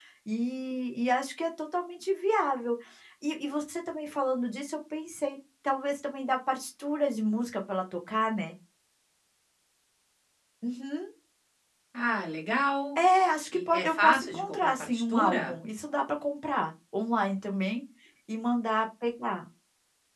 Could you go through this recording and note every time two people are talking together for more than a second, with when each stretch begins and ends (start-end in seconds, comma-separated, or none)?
13.7-15.4